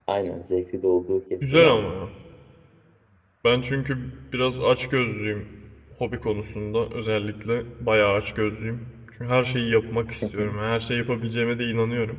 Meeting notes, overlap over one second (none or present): none